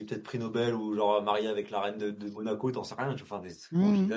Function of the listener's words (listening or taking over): taking over